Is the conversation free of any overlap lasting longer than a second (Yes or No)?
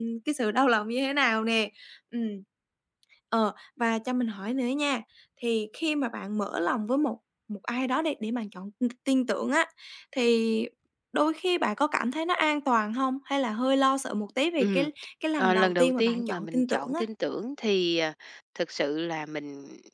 No